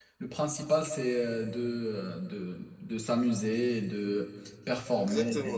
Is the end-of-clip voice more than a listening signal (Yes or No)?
Yes